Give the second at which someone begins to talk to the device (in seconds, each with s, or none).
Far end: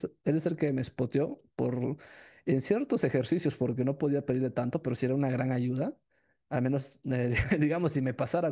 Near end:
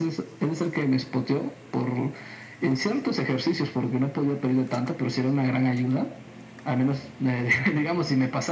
none